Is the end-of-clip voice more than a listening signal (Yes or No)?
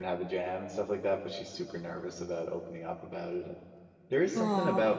No